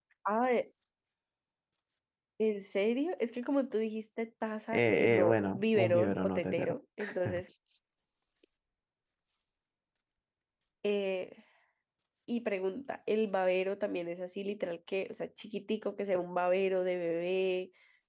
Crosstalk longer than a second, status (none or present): present